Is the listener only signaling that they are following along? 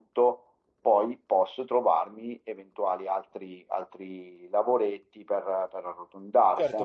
No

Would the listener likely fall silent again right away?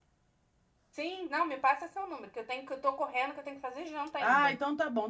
No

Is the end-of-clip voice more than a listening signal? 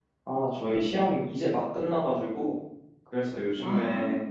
No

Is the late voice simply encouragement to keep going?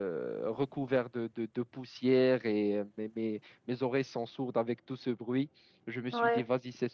Yes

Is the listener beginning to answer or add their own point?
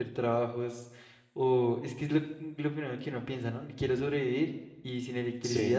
No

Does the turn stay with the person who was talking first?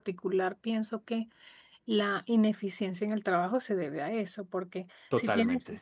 Yes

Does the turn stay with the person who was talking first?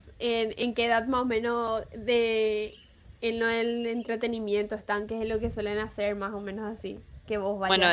No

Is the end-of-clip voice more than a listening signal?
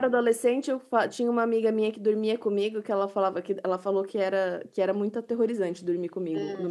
Yes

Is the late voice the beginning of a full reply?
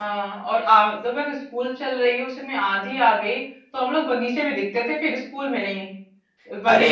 No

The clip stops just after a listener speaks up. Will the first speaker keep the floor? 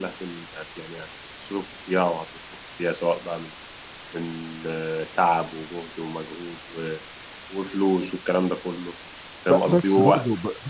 No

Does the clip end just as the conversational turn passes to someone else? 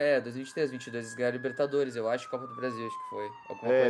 Yes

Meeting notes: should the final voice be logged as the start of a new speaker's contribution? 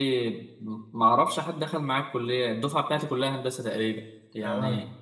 No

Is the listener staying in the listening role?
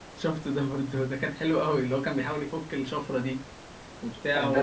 No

